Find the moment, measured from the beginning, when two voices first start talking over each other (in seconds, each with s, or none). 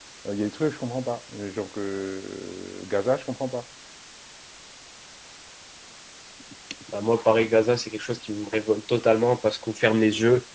none